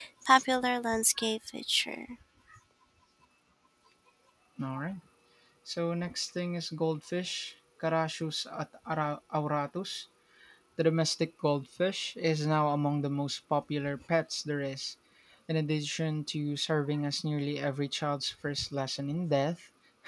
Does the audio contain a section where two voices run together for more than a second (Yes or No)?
No